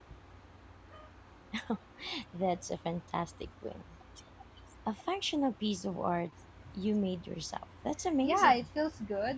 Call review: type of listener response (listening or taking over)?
taking over